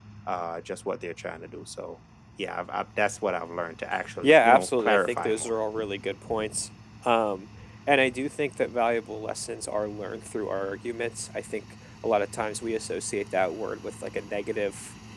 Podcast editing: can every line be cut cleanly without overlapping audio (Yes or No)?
No